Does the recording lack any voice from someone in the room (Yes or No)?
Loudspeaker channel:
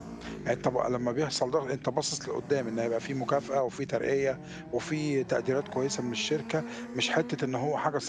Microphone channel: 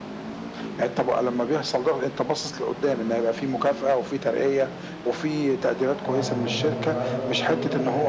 No